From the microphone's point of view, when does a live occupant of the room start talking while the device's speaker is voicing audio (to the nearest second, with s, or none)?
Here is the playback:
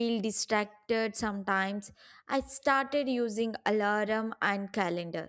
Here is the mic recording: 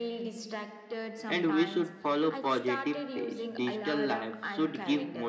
1 s